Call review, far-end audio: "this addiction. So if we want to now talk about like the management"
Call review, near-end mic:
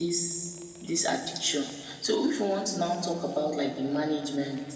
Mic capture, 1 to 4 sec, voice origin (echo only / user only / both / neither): echo only